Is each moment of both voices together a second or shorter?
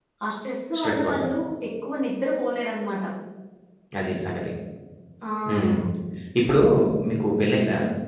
Yes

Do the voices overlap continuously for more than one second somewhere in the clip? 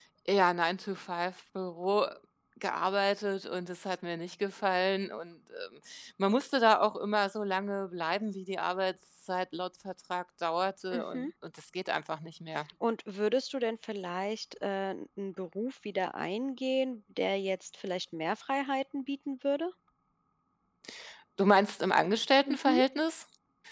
No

